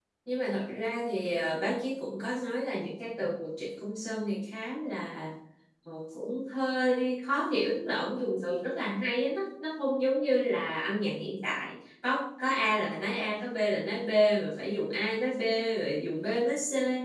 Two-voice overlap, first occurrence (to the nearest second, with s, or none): none